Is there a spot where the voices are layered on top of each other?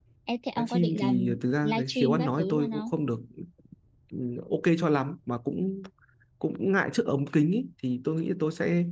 Yes, from 0.6 s

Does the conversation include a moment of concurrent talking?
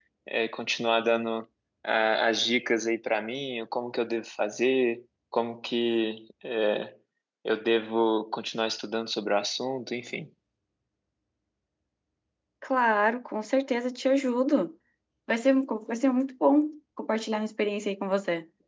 No

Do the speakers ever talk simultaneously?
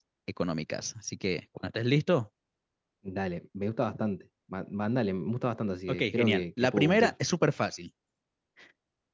Yes, from 5.9 s

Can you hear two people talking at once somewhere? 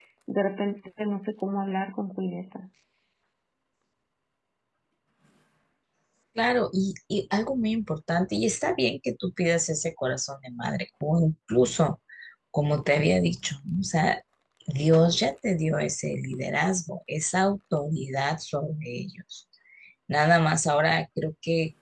No

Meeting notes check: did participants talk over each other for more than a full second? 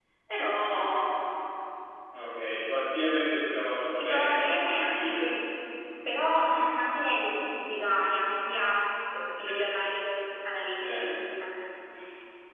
Yes, from 3.9 s

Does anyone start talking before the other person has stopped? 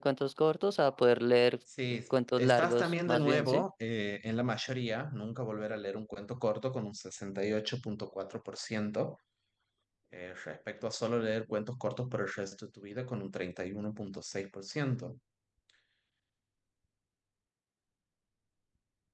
Yes, from 2.4 s

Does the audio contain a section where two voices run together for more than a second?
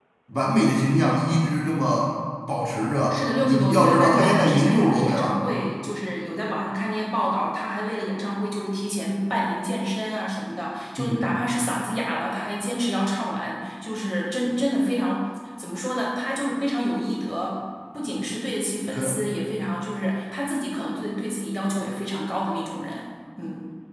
Yes, from 3.1 s

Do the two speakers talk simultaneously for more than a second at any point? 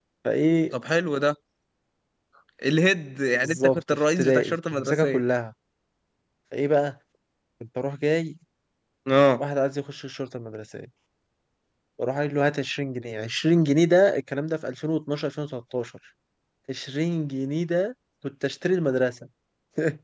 Yes, from 3.4 s

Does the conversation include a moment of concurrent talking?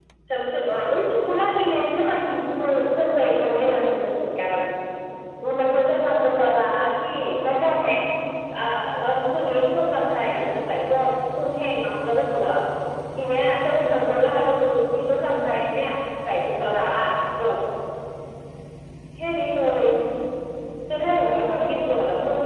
Yes, from 2.6 s

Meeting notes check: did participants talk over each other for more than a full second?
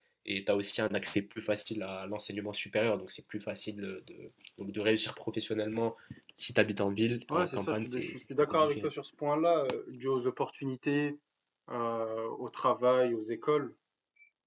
Yes, from 7.3 s

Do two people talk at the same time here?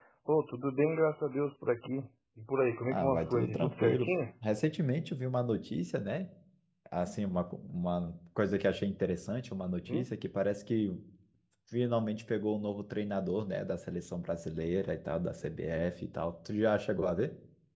Yes, from 2.9 s

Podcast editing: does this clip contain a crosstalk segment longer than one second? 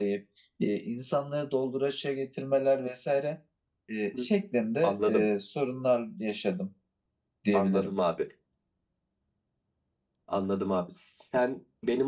No

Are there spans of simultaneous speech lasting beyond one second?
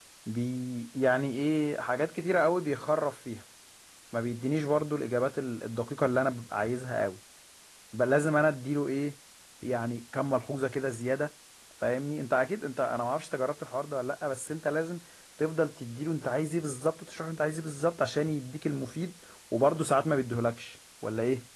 No

